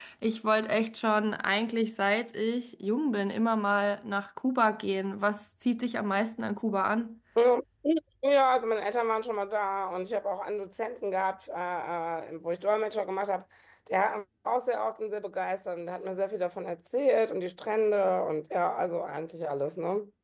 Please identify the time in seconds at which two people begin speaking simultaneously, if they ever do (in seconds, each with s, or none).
none